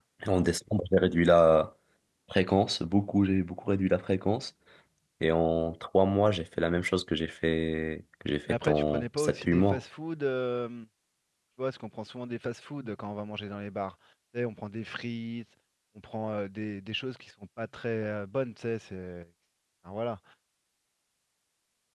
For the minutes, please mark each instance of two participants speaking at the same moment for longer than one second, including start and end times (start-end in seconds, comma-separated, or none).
8.5-9.8